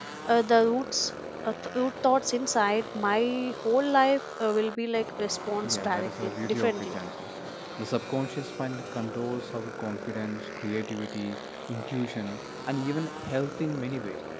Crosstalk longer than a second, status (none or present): present